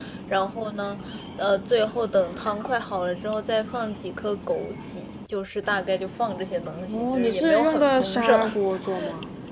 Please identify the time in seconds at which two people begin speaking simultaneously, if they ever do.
7 s

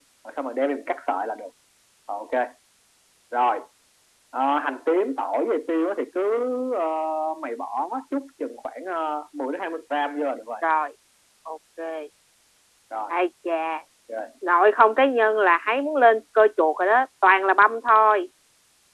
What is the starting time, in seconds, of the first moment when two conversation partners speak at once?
none

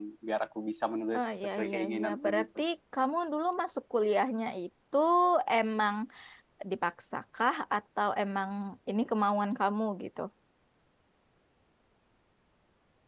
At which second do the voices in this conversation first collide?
1 s

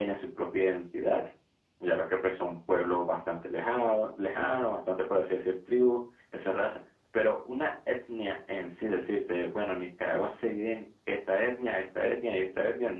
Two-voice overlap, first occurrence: none

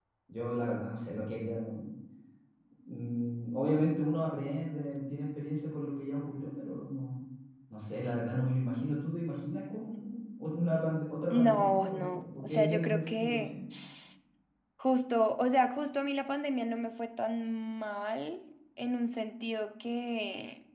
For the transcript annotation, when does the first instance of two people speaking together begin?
11 s

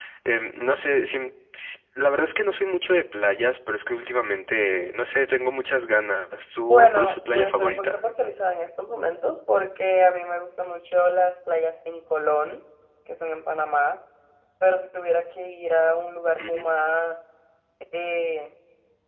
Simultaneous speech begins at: 7 s

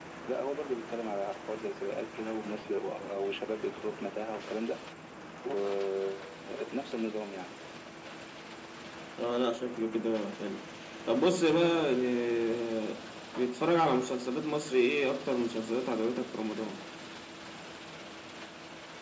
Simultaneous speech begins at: none

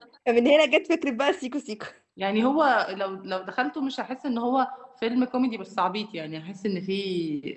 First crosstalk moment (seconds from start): none

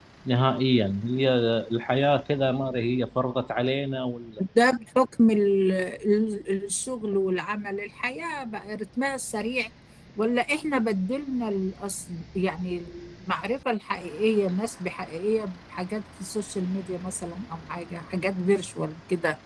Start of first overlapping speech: none

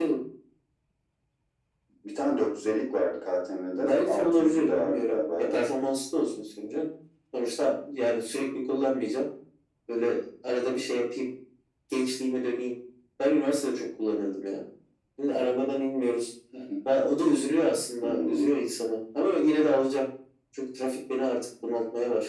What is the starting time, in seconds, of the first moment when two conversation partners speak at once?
4 s

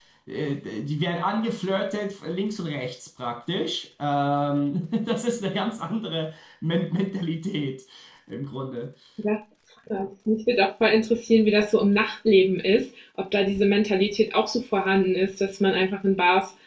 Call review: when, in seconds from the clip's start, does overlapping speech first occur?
none

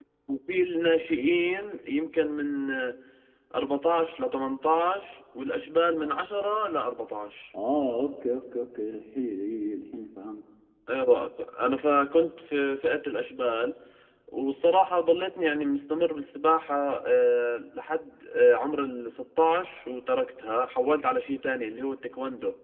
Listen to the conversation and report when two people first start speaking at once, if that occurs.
none

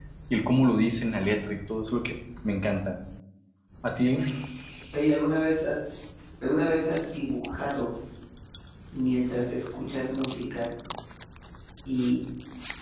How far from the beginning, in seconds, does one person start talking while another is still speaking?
none

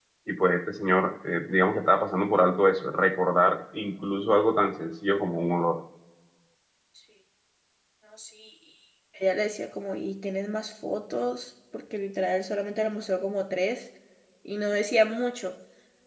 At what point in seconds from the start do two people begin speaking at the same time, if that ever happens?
none

